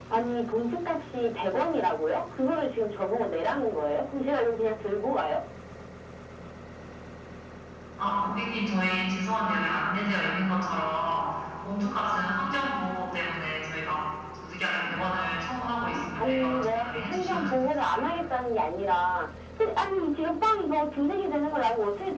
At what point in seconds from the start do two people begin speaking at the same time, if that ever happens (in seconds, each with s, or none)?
16.1 s